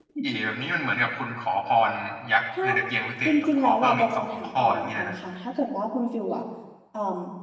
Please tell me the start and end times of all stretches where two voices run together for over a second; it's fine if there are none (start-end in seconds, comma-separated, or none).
3.2-5.2